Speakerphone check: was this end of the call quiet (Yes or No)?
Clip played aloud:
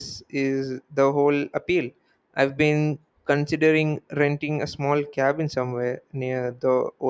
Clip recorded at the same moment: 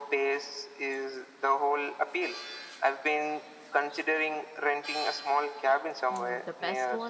No